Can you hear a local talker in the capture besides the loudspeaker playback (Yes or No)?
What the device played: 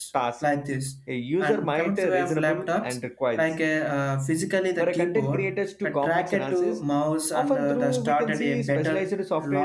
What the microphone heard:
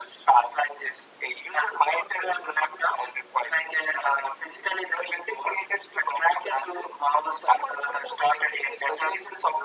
No